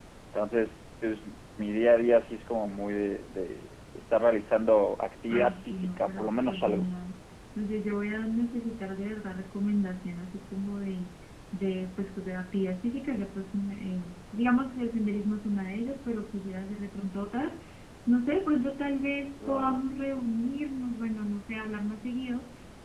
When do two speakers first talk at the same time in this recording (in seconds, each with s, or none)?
5.3 s